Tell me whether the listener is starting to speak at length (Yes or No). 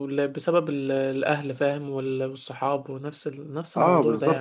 Yes